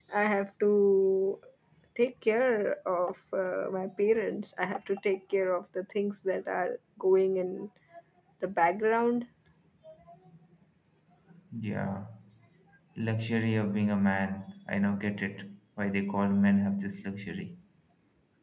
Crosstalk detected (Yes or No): No